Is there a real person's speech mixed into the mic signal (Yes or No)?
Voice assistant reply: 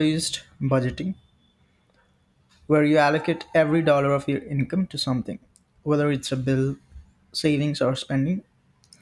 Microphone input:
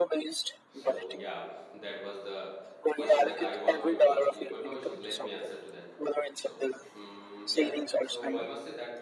Yes